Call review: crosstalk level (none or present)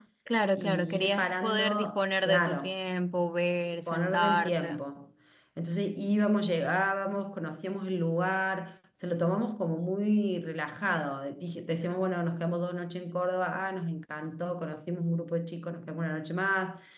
present